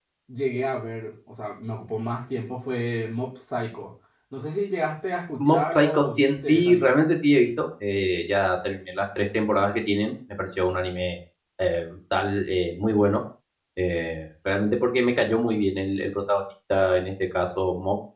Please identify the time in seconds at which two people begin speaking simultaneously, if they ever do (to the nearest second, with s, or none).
5 s